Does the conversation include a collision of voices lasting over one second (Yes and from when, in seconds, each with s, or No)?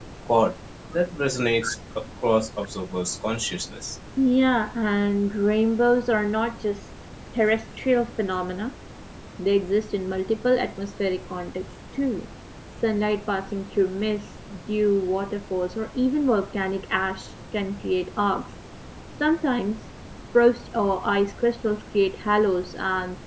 No